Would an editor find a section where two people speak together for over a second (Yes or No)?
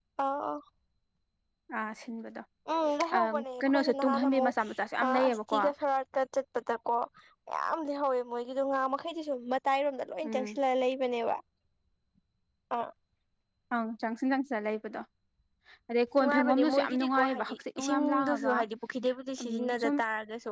Yes